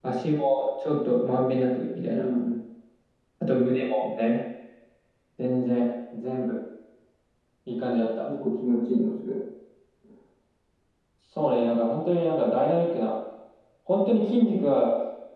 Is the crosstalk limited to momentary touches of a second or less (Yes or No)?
Yes